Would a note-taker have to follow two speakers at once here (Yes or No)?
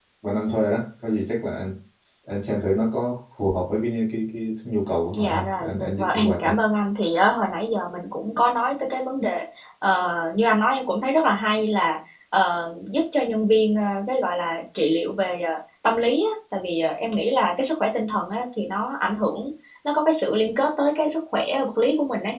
Yes